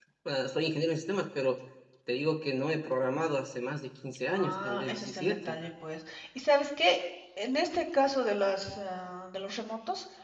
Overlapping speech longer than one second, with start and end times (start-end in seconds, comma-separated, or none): 4.3-5.5